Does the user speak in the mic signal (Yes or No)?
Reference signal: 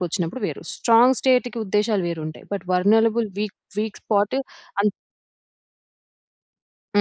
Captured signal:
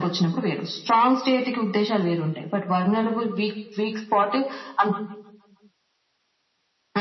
No